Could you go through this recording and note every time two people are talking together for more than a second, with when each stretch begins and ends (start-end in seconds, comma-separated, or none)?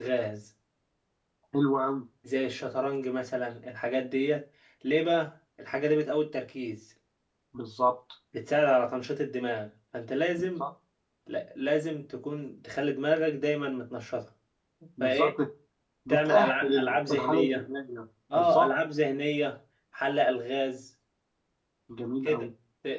16.1-17.7